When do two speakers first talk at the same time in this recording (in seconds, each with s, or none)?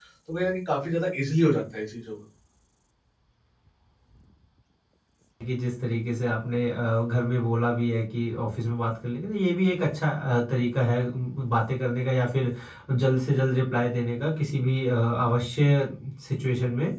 none